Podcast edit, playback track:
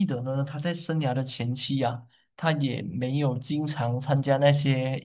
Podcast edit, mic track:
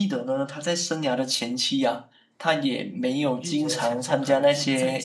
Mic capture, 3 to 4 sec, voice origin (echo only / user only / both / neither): both